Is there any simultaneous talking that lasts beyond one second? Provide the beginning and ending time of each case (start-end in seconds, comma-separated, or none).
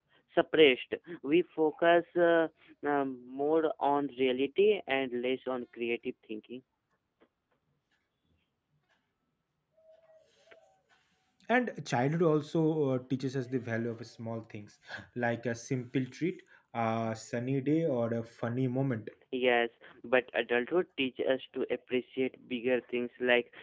none